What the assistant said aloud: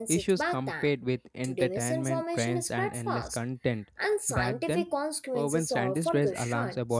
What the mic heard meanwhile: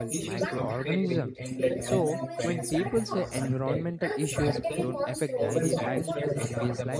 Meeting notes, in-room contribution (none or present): present